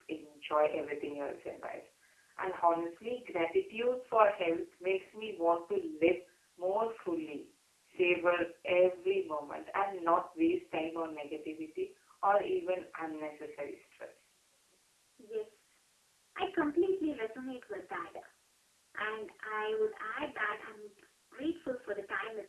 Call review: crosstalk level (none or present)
none